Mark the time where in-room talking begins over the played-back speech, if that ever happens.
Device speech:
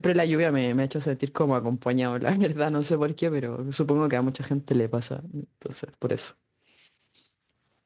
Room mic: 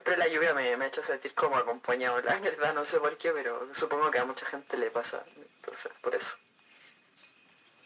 none

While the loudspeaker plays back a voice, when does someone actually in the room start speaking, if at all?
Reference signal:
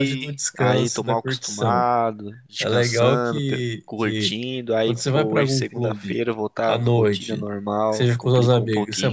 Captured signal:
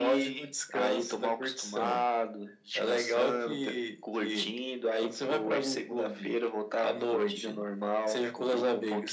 none

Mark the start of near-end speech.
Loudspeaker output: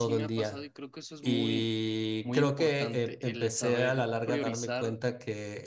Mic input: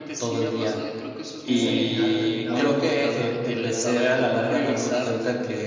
1.5 s

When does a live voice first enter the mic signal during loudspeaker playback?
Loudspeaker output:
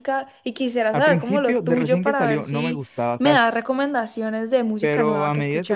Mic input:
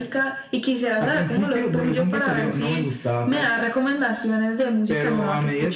none

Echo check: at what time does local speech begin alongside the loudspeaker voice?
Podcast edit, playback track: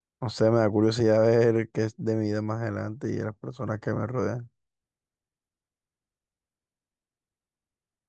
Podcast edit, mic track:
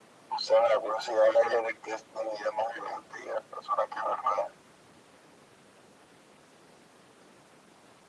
none

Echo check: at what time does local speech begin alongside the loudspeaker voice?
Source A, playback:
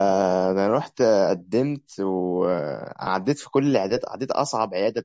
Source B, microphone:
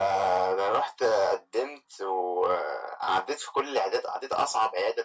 none

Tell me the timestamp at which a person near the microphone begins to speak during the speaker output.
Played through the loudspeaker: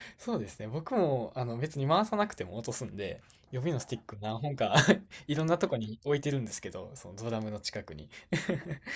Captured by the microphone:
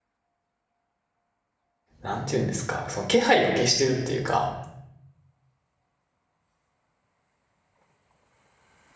2.0 s

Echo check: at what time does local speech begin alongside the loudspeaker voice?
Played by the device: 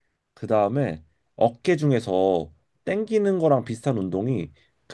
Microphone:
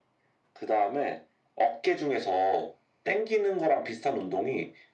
none

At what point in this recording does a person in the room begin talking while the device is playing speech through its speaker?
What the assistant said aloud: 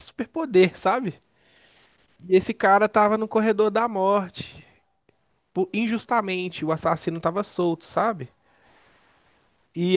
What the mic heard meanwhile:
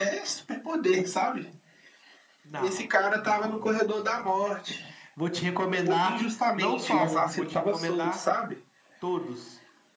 2.4 s

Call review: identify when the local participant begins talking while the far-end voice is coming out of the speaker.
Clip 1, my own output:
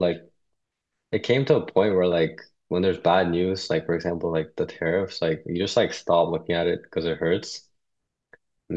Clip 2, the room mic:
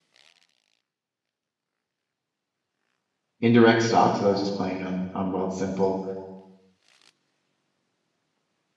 3.4 s

